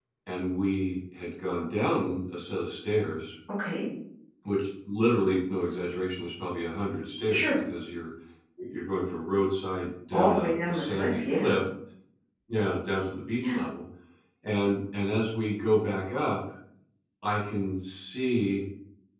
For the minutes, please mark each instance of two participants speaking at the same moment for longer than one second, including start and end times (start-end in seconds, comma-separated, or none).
10.1-11.5